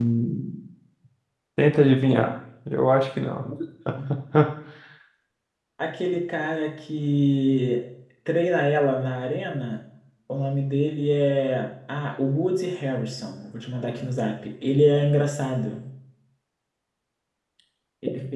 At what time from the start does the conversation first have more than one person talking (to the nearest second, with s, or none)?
none